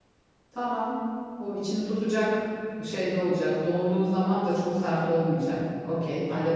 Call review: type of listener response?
taking over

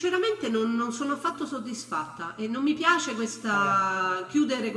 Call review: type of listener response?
listening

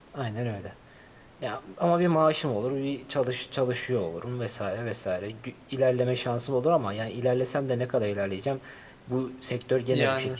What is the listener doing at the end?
listening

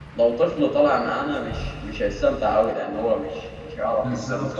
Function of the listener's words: taking over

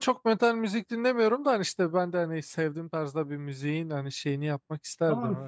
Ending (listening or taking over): taking over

